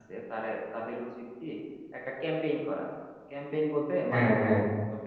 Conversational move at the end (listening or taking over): listening